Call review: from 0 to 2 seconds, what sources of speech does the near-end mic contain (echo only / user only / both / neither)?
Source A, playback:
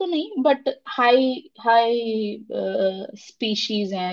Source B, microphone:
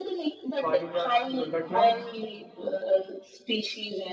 both